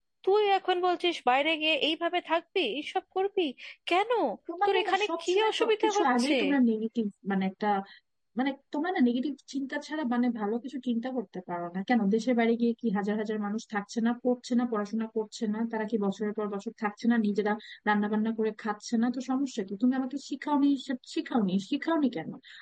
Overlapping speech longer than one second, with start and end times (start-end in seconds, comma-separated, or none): 4.6-6.3